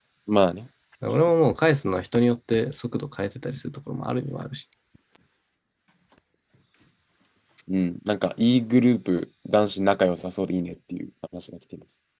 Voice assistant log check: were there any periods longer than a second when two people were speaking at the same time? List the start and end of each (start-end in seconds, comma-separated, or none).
none